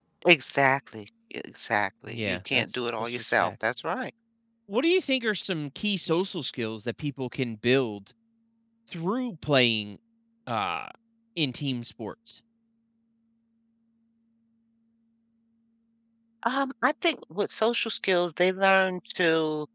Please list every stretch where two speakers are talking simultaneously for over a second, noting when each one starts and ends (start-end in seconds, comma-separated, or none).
2.1-3.5